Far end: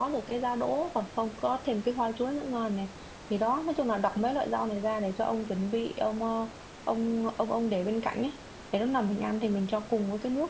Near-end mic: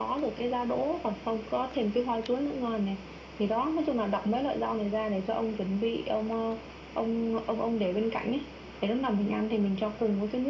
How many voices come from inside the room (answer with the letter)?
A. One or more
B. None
B